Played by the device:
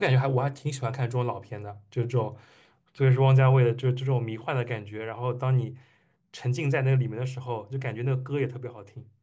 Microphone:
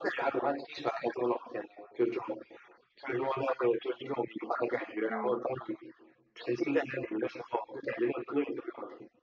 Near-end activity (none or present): present